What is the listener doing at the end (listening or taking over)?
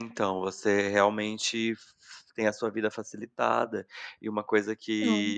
listening